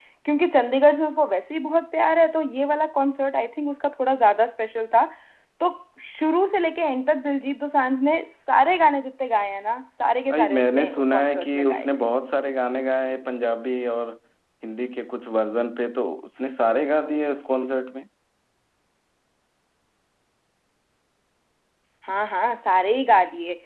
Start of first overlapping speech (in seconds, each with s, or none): 10.3 s